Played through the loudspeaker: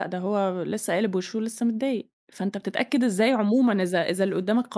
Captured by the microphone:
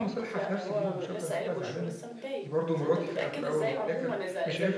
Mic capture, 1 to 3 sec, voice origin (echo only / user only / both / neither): both